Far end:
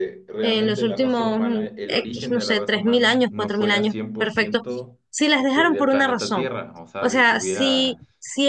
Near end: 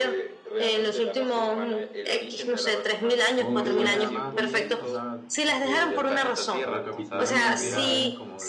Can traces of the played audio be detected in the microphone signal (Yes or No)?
Yes